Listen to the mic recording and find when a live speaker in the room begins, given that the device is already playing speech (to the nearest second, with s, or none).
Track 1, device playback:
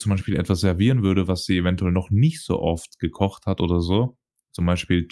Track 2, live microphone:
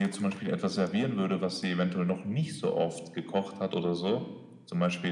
none